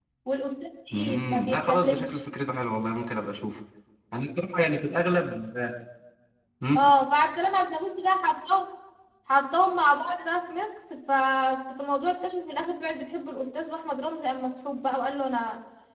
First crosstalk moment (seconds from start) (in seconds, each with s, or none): 0.9 s